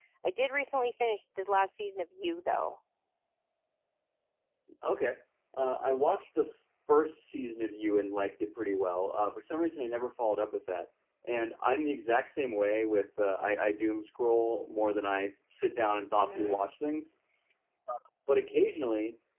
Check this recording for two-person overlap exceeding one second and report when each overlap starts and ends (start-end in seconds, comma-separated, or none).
none